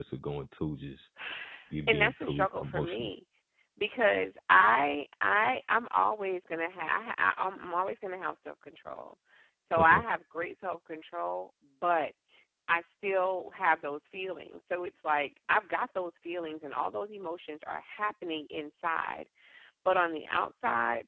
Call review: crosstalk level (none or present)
present